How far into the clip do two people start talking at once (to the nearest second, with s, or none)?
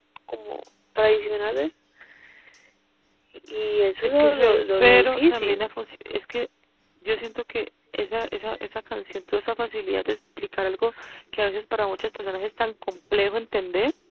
4 s